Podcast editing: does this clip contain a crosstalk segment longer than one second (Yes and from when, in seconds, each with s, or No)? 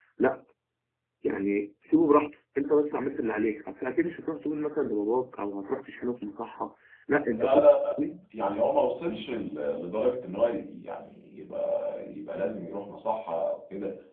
No